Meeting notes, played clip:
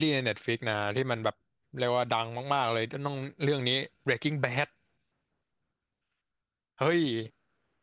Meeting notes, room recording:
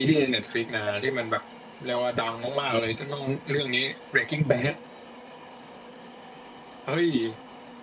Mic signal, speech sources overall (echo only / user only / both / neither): echo only